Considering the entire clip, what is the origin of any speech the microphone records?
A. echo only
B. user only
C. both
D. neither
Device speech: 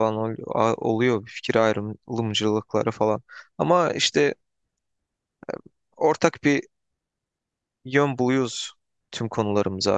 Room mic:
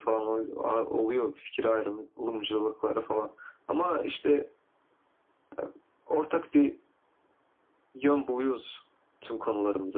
A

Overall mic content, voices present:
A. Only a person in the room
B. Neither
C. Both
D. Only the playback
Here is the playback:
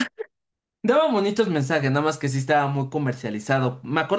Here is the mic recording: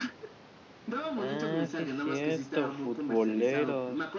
C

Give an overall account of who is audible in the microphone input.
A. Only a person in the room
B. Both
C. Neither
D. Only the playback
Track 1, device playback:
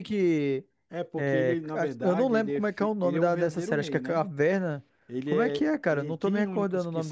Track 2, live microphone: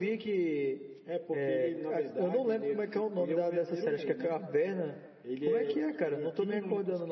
D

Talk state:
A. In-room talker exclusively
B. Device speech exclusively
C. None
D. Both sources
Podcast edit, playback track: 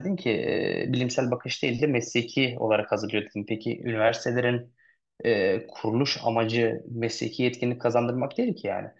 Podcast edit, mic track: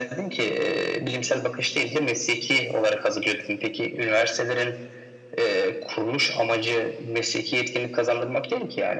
B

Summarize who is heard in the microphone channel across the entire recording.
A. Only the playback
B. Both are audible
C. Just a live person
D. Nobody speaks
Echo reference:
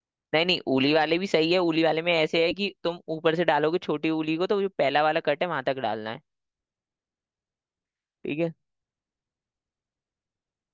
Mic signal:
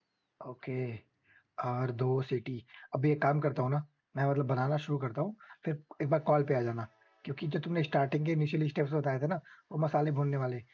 C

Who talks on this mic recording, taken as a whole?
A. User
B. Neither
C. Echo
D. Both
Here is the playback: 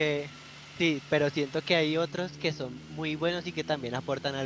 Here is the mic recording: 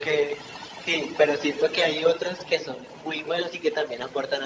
C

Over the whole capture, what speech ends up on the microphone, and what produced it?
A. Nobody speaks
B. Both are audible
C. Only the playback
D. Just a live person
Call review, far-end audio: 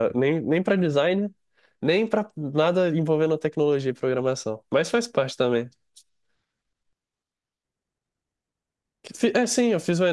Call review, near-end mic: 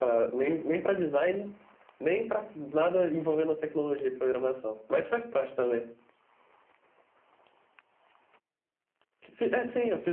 C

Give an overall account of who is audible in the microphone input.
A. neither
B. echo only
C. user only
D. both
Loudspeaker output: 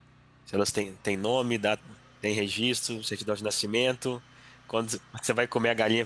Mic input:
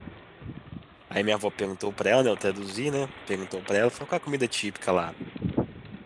C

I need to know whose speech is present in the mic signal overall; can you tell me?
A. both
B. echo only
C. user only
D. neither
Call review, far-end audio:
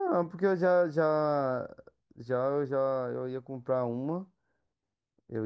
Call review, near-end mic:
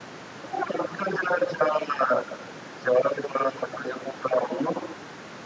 B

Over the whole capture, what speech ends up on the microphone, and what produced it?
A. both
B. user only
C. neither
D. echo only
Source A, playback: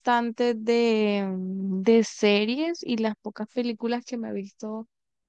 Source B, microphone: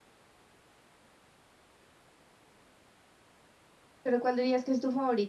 B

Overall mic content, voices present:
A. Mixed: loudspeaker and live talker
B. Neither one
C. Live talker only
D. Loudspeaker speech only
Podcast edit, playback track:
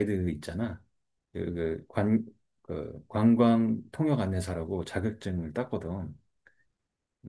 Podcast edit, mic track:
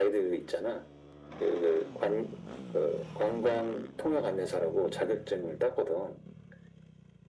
D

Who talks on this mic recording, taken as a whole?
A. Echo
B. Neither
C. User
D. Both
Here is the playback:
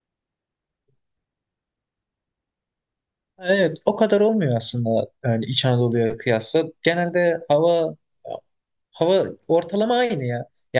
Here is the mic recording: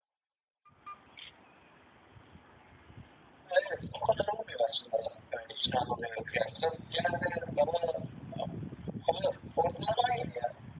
A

